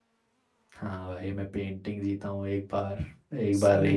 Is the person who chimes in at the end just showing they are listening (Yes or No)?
Yes